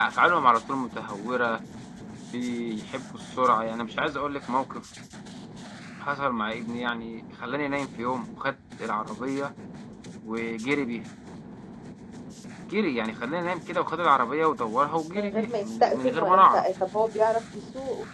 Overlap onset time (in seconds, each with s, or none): 15.2 s